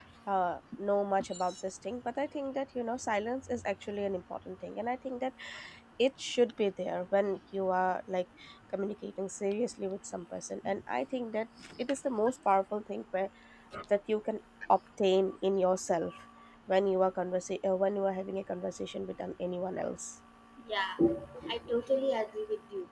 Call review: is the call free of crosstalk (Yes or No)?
Yes